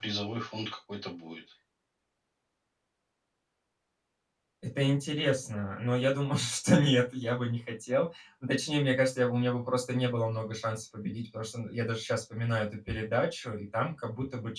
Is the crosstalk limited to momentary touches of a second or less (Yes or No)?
Yes